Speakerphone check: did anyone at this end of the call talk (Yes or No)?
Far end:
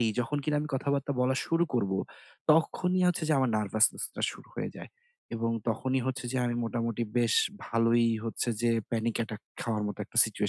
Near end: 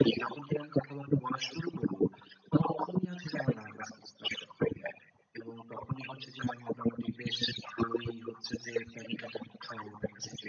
No